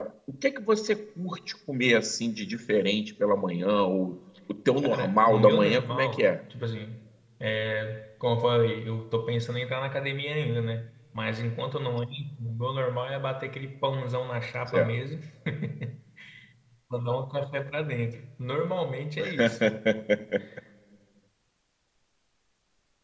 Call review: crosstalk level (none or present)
present